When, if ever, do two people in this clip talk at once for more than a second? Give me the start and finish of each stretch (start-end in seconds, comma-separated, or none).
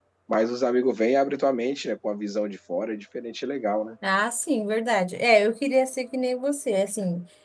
none